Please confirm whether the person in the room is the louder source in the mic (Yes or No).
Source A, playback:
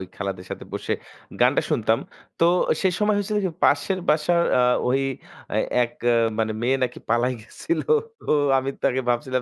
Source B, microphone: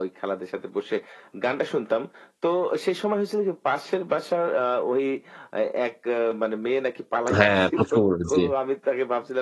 Yes